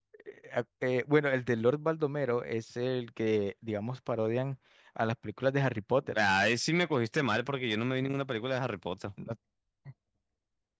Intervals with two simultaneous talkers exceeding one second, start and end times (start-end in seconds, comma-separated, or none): none